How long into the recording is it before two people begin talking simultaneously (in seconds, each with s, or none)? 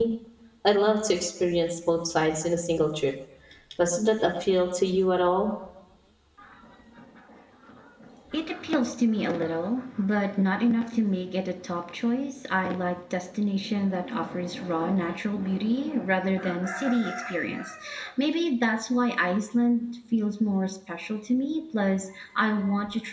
none